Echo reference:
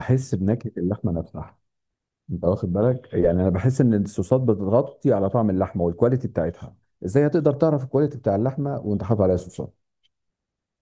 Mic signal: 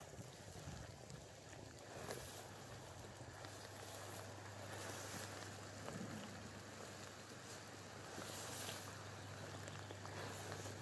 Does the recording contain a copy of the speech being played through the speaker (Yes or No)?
No